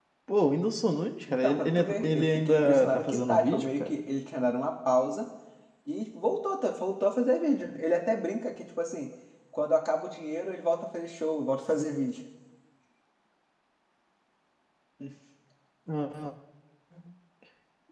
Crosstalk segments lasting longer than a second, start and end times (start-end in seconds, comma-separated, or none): 1.3-4.0